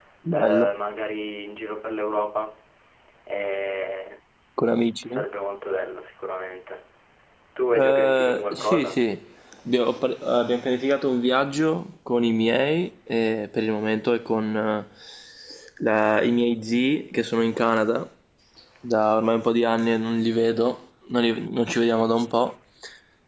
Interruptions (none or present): present